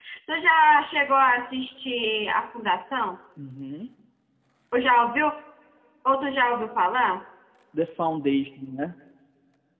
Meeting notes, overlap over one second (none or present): none